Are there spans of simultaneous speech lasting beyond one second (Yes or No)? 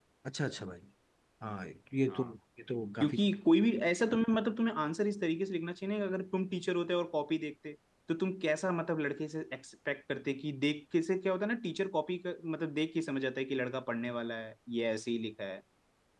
No